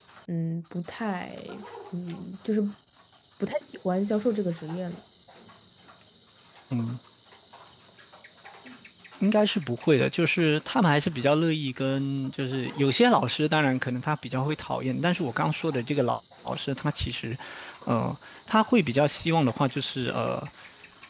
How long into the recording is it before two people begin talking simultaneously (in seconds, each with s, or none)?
none